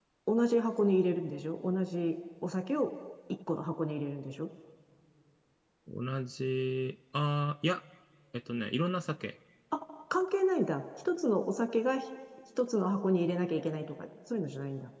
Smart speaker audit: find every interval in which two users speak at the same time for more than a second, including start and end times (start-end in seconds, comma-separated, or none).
none